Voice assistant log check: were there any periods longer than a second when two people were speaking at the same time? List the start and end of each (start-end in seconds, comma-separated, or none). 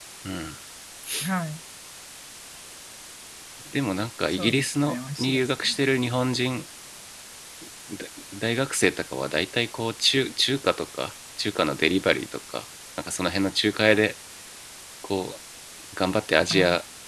4.3-5.8